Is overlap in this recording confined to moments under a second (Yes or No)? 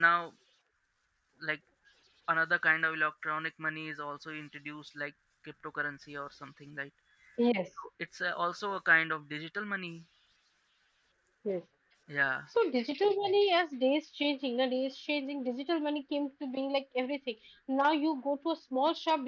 Yes